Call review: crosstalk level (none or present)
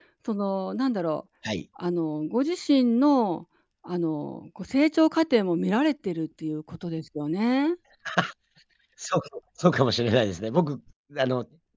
none